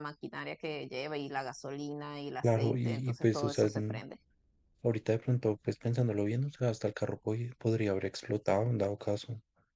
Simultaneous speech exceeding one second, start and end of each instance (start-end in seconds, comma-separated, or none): 2.4-4.0